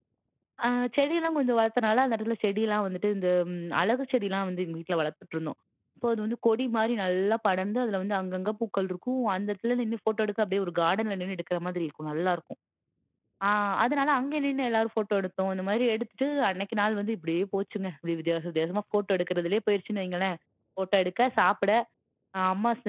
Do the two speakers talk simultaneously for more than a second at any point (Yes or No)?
No